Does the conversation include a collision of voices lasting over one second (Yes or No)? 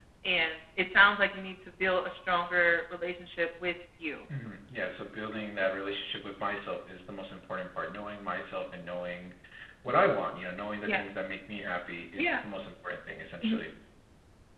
No